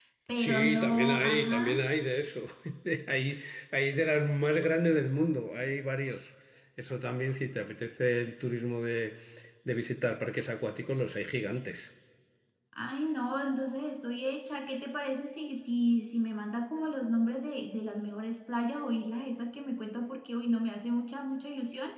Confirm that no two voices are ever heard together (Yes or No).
No